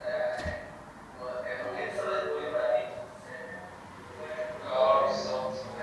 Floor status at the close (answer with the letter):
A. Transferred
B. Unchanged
A